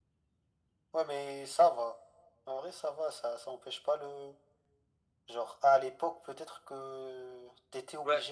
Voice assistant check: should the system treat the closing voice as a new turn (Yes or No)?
Yes